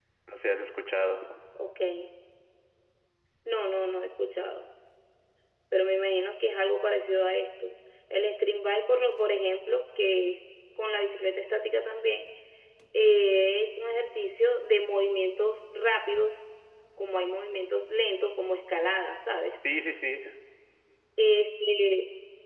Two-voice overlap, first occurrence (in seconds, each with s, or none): none